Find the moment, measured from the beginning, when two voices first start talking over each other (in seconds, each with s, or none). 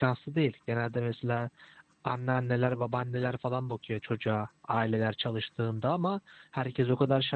none